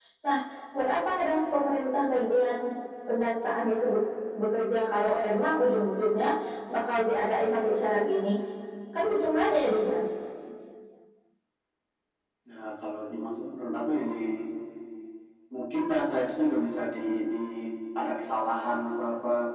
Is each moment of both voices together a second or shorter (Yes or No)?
Yes